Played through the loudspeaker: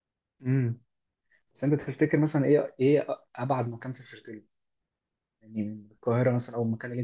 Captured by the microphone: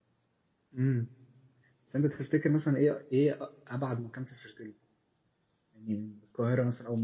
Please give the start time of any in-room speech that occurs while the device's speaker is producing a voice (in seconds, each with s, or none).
none